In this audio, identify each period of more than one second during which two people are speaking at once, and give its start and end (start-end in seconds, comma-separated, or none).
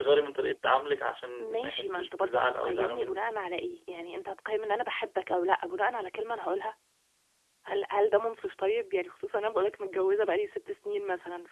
1.4-3.2